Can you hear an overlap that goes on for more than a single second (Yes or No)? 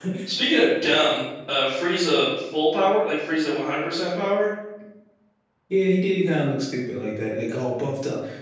No